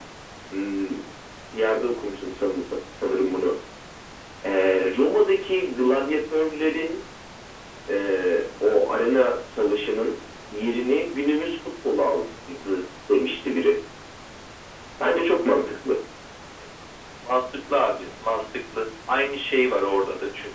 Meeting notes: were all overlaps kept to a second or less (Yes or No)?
Yes